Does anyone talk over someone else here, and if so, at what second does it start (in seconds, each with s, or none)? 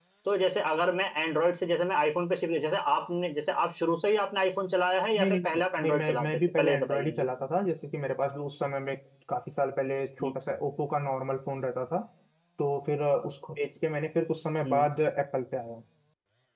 5.2 s